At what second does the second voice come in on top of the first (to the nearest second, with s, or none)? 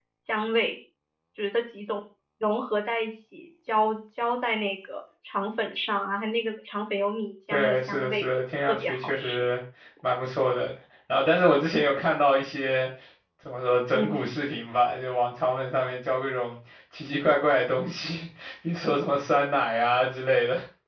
8 s